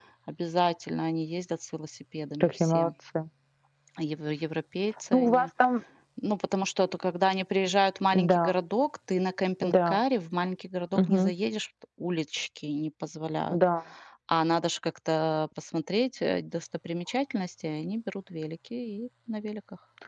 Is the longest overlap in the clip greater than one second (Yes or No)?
No